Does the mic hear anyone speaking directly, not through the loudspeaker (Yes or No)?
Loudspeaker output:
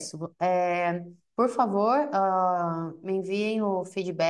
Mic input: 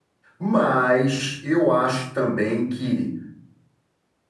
Yes